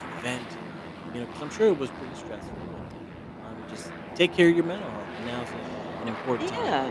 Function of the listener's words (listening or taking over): taking over